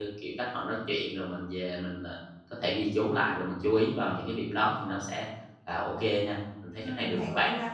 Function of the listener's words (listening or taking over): taking over